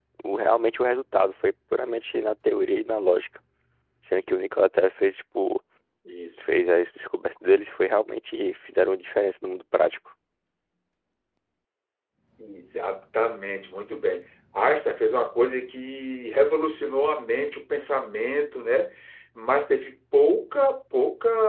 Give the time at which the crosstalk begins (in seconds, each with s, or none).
none